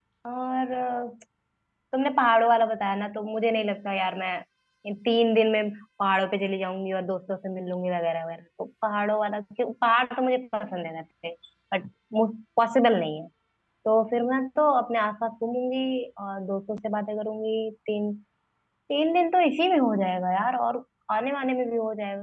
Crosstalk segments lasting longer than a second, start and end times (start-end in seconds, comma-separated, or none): none